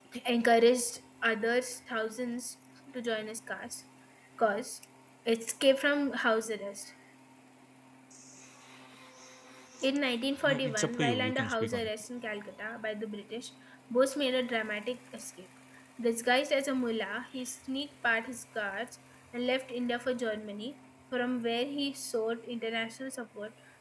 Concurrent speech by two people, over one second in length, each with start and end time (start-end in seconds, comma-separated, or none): 10.4-11.9